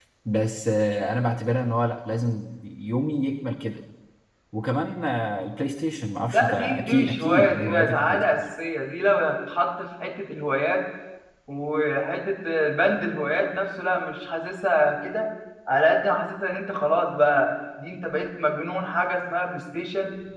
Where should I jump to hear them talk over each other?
6.3 s

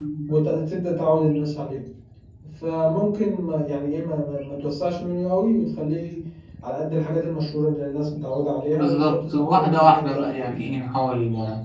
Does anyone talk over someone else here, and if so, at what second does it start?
8.7 s

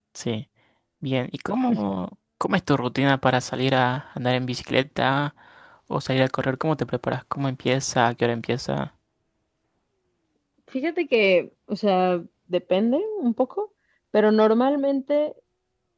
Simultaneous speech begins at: none

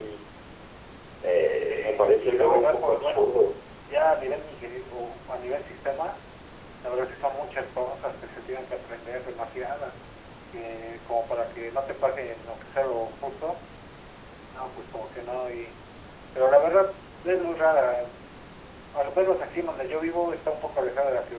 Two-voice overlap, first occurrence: 1.7 s

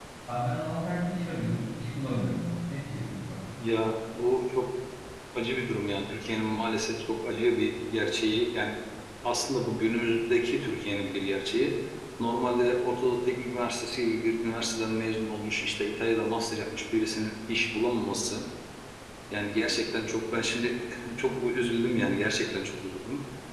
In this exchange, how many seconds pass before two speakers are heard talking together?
none

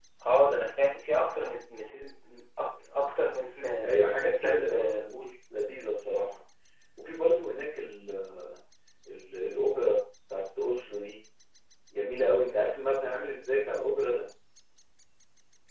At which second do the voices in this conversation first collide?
3.9 s

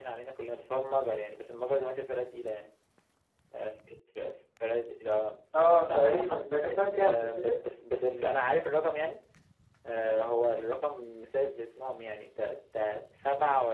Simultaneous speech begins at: 5.5 s

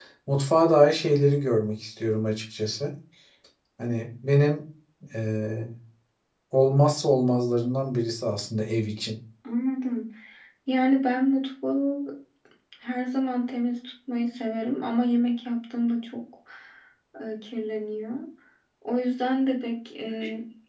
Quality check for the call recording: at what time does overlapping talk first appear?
none

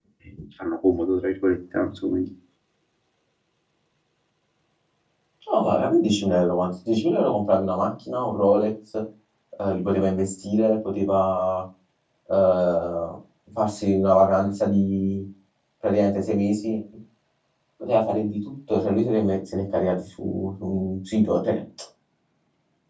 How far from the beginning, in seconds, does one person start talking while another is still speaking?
none

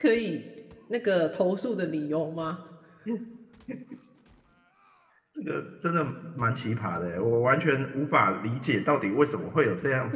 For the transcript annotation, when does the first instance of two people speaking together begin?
none

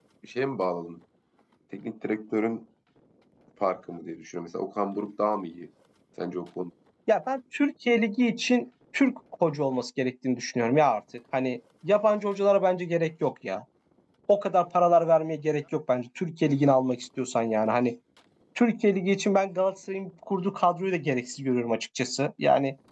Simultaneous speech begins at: none

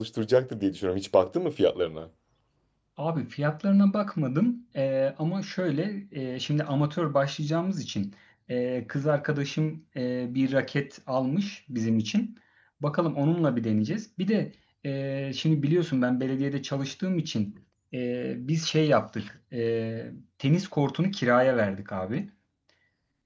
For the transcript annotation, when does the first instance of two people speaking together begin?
none

